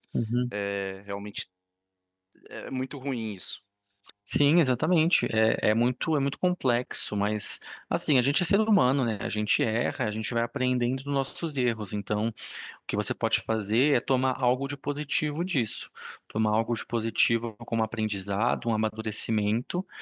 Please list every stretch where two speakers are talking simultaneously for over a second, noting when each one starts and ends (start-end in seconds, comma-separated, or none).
none